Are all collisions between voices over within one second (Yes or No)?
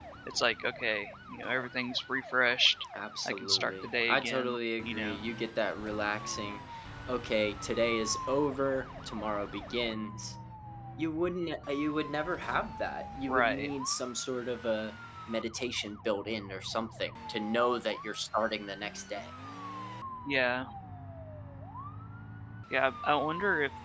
No